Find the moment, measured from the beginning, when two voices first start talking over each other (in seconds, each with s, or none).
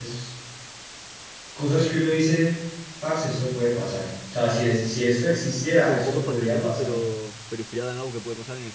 5.8 s